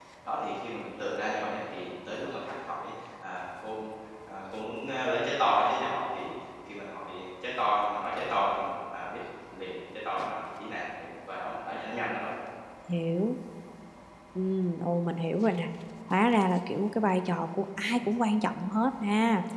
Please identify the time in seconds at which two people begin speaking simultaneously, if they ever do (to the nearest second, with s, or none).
none